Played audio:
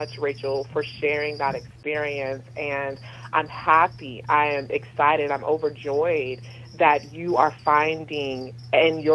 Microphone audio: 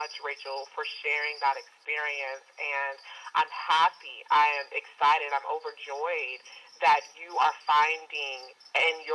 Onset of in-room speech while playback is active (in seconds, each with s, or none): none